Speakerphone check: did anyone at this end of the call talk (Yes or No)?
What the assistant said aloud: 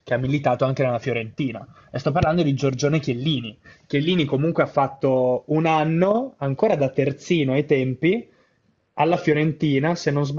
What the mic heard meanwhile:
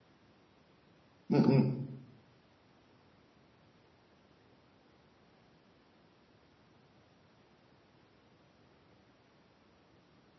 Yes